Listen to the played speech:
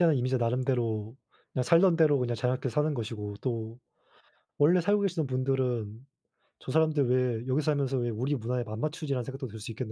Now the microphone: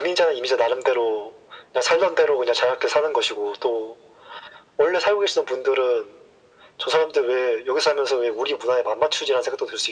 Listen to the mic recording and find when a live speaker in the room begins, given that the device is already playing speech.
none

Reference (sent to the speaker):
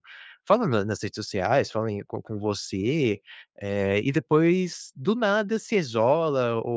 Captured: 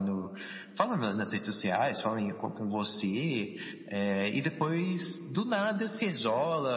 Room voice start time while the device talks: none

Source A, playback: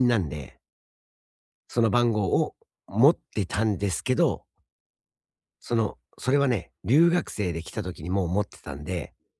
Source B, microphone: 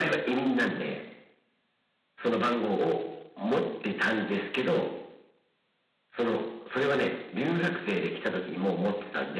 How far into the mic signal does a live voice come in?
none

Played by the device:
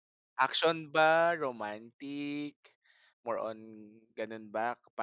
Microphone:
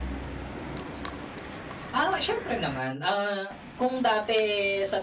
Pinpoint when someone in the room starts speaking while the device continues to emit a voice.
1.9 s

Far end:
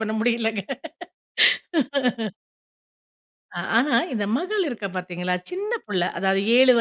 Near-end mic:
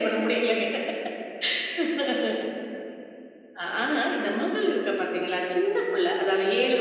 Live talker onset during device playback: none

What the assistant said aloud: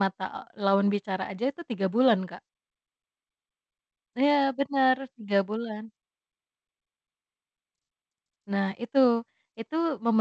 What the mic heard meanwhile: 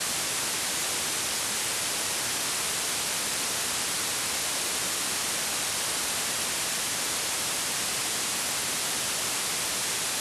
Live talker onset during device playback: none

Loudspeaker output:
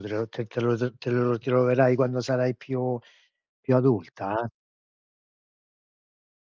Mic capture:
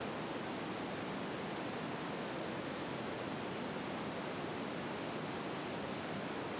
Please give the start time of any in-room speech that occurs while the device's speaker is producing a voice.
none

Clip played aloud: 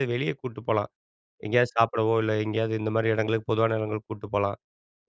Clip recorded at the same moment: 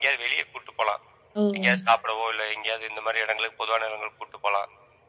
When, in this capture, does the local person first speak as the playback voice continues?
1.4 s

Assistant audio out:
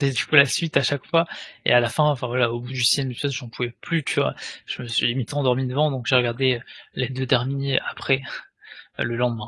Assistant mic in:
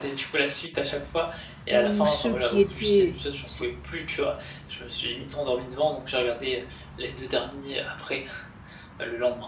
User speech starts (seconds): 1.7 s

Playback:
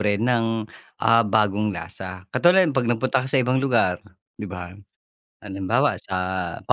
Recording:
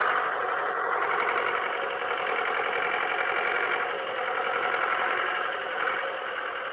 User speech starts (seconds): none

